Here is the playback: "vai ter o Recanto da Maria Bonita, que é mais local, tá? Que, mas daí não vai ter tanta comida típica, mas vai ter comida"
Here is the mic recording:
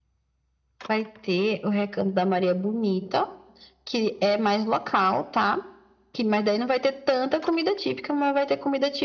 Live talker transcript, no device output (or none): none